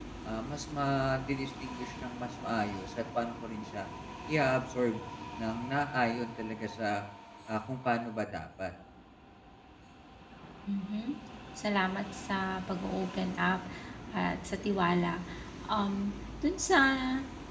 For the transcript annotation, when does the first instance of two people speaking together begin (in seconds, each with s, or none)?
none